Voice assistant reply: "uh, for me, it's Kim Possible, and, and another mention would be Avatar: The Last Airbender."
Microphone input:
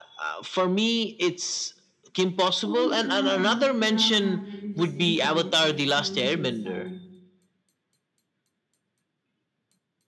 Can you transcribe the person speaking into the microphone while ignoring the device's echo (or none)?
Oh yeah, that era had very distinct sound effects and visual style.